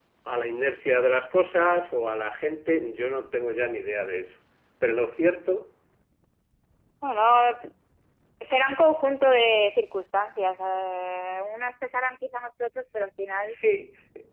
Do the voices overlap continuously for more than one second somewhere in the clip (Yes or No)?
No